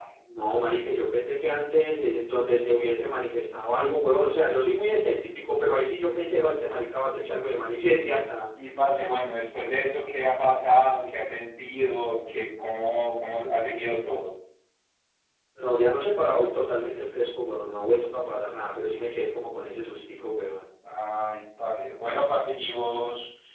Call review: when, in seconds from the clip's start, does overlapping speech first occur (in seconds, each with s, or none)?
none